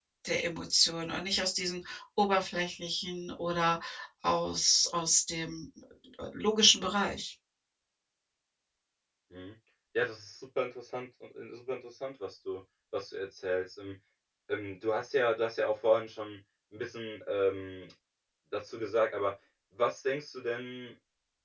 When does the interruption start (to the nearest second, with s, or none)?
none